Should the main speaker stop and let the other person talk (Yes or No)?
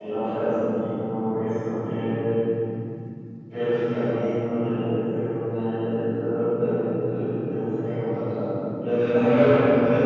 No